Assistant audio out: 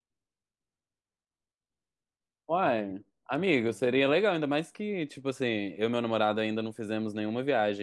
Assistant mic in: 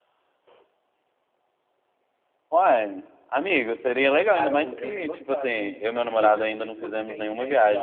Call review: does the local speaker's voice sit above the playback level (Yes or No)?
No